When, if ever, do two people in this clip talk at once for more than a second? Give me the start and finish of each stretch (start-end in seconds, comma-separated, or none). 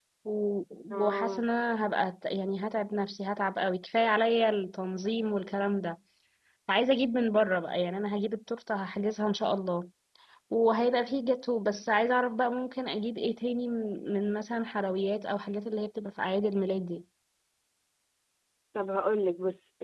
none